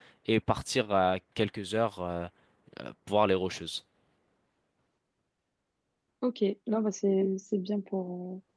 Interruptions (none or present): none